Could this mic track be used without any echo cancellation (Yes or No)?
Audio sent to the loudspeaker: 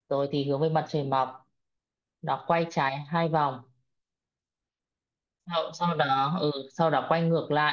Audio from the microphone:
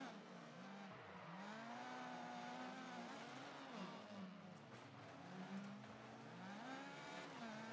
Yes